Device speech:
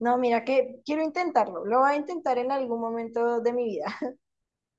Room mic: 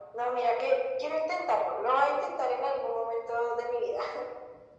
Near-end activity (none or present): none